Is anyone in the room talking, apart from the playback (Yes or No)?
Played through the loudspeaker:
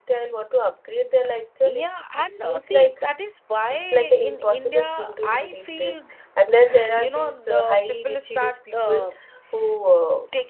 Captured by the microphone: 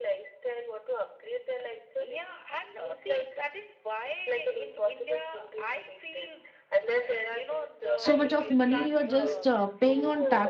Yes